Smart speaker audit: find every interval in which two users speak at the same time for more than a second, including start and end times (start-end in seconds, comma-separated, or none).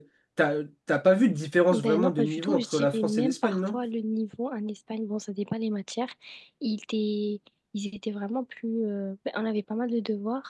1.7-3.5